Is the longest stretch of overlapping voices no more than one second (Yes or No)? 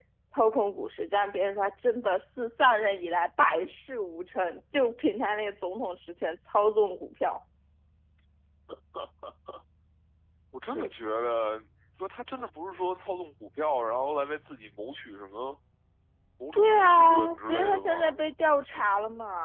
No